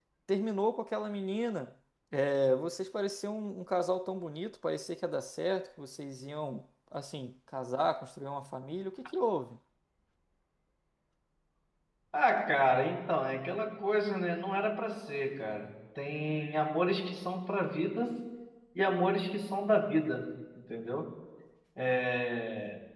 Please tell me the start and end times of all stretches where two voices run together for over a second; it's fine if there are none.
none

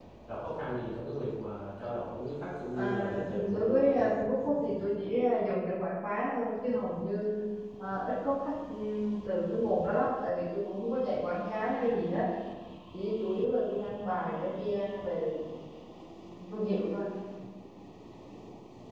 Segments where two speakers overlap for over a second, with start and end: 2.7-4.0

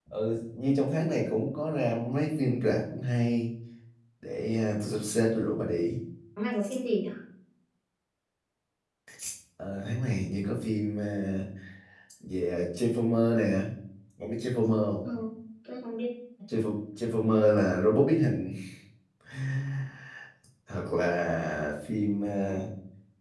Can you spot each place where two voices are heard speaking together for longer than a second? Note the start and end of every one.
none

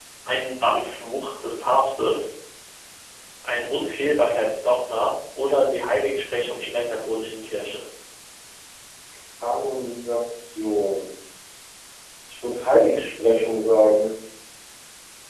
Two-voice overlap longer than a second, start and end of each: none

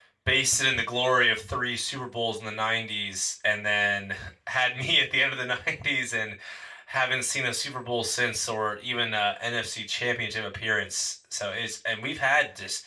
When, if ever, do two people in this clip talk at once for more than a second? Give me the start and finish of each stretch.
none

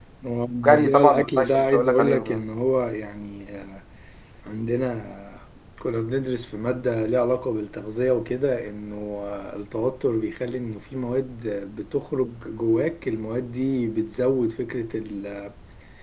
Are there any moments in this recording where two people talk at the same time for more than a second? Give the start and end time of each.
0.7-2.4

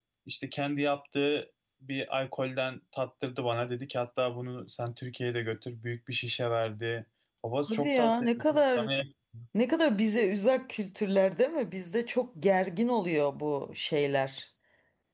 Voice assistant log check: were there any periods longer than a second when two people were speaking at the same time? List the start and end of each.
7.7-8.9

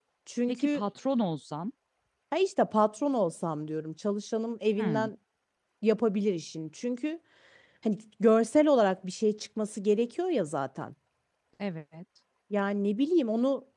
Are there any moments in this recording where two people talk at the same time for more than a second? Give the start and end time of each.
none

